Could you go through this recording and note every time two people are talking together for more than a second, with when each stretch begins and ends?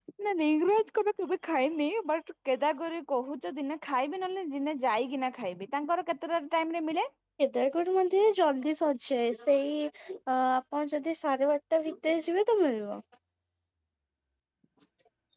none

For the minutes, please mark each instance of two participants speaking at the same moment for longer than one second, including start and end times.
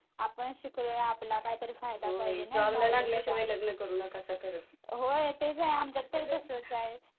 2.0-3.4

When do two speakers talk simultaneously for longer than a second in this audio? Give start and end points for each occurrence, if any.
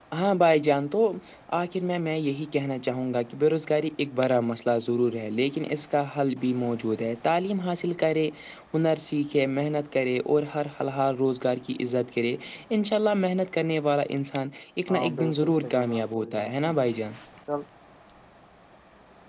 14.9-16.5

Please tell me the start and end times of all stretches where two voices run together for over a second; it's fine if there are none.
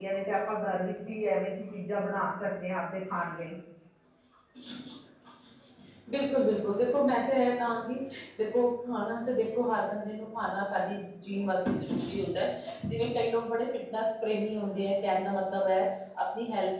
none

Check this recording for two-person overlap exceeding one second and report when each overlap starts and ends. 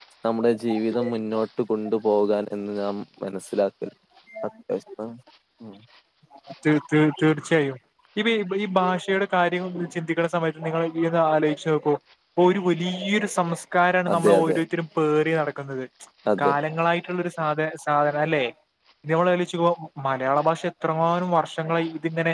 none

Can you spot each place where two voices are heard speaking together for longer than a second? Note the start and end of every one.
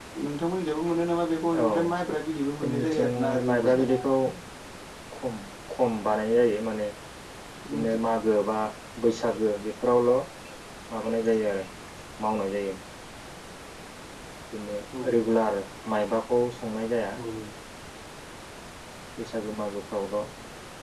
2.6-3.9

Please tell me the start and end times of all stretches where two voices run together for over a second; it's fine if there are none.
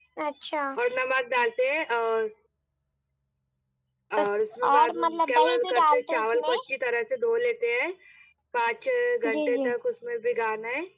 4.7-6.5

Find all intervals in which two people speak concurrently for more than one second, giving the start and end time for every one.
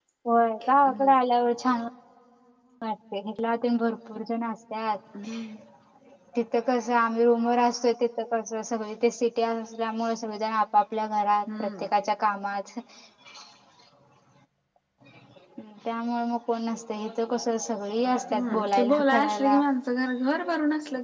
18.3-19.6

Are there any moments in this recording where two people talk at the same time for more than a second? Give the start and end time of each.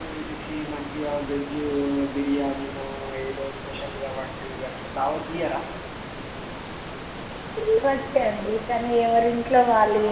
none

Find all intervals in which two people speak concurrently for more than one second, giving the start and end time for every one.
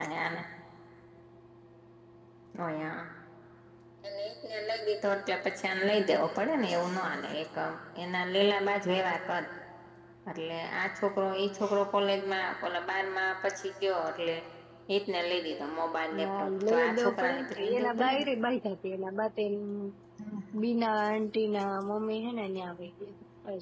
16.2-18.2

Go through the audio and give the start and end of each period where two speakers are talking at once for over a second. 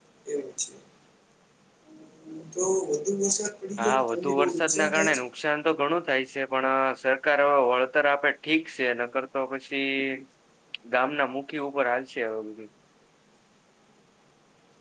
3.8-5.2

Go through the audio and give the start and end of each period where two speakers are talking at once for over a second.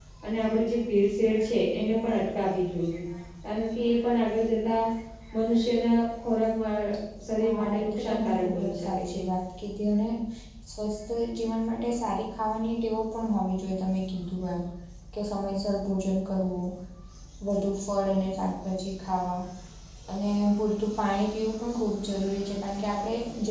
7.7-9.2

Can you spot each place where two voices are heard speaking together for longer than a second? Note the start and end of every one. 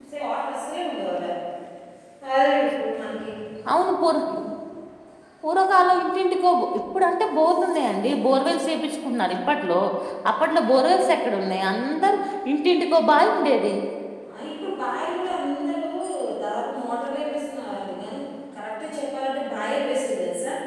none

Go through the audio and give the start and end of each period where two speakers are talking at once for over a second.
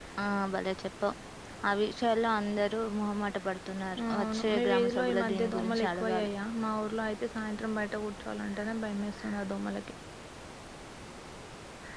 4.1-6.3

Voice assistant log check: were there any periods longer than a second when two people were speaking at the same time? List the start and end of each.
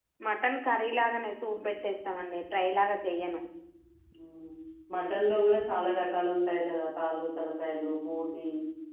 none

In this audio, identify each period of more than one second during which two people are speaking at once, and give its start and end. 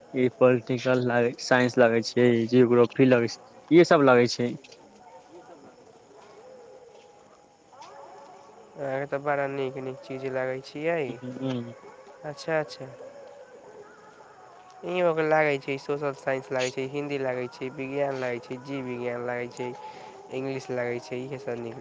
none

